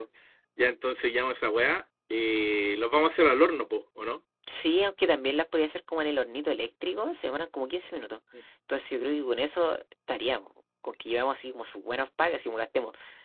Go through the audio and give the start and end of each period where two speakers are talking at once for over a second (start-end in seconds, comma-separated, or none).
none